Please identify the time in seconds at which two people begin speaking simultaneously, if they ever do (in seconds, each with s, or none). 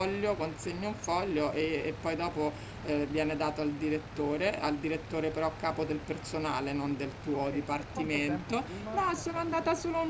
7.5 s